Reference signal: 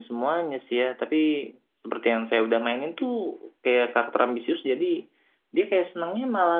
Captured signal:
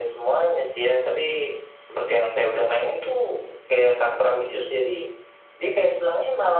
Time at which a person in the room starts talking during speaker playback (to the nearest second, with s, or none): none